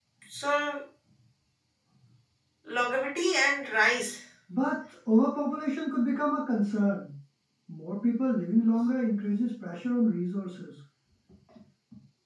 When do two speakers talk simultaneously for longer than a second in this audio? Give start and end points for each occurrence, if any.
none

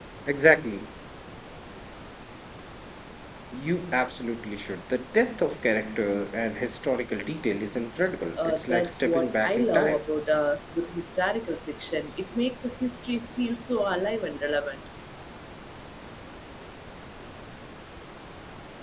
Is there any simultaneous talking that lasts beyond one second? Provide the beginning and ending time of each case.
8.4-10.0

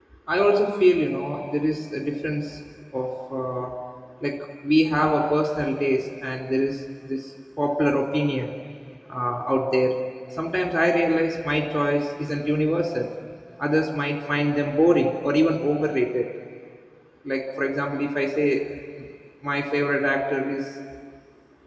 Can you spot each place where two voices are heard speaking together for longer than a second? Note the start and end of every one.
none

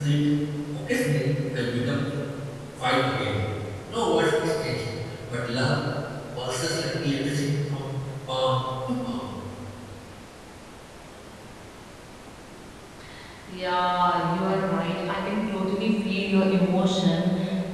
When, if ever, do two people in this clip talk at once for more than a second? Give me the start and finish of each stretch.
none

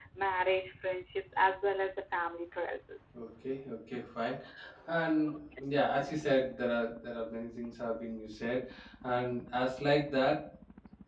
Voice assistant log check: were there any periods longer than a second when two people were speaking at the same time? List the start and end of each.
none

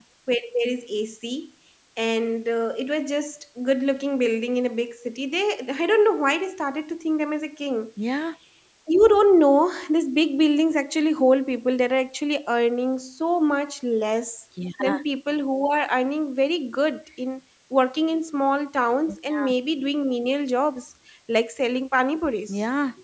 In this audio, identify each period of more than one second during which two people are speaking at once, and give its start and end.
none

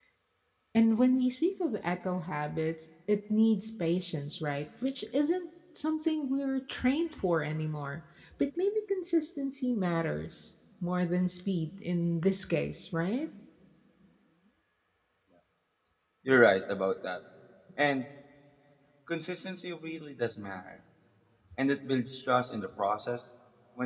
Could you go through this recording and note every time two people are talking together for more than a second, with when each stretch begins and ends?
none

